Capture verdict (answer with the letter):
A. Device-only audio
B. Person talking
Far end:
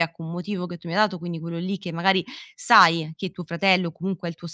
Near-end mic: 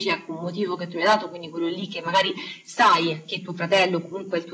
A